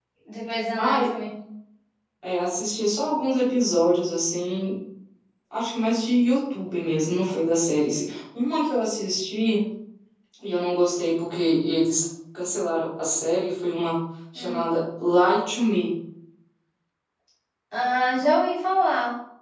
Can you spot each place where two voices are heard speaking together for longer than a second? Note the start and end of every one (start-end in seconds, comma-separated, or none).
none